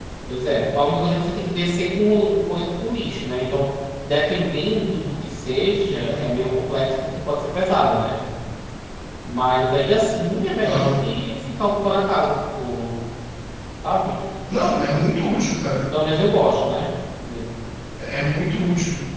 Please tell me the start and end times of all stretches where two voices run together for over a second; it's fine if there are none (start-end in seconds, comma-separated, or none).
none